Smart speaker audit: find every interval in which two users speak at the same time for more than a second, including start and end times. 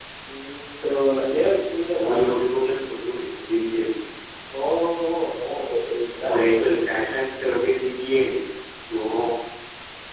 none

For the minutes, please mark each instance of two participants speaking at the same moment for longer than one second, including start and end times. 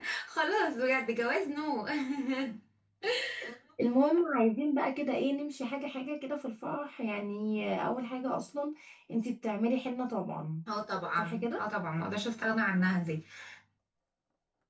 none

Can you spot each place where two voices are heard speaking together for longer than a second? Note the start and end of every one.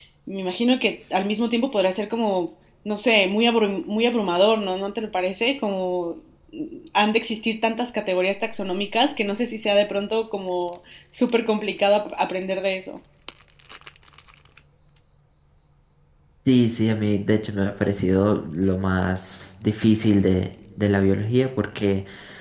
none

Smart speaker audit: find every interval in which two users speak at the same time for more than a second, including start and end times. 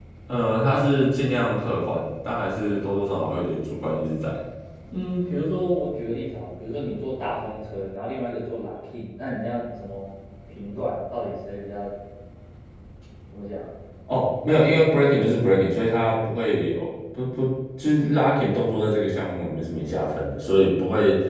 none

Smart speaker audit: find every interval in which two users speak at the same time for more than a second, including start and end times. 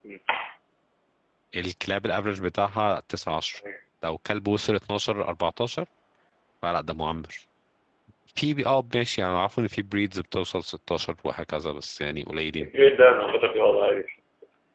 none

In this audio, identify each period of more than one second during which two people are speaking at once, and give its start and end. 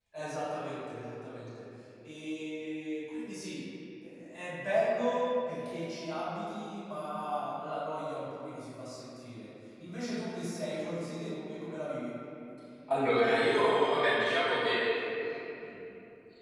none

